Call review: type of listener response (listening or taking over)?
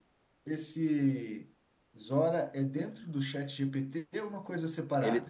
taking over